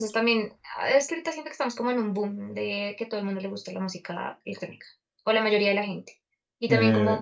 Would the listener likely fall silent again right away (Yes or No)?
Yes